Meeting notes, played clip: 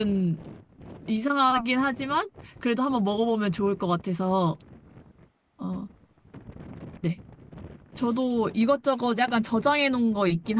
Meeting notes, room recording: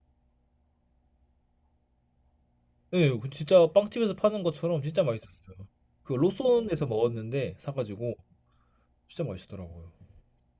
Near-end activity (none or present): present